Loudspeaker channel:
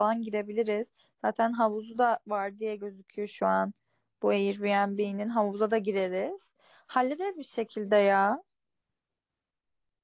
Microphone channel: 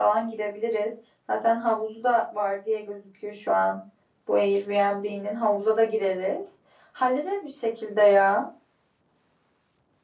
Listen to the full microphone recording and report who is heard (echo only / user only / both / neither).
echo only